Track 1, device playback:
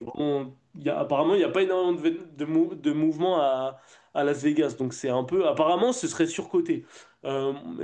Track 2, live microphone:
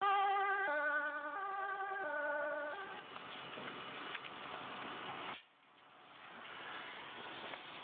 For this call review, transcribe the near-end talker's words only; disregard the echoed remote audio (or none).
none